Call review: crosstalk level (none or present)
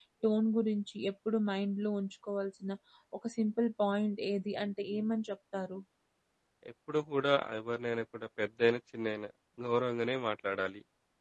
none